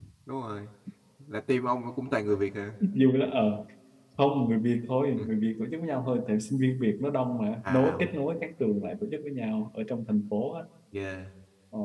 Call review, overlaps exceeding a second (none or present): none